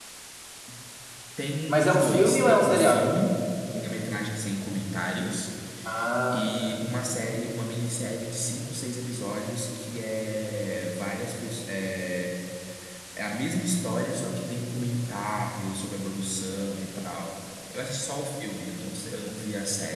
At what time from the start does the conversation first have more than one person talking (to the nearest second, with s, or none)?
2 s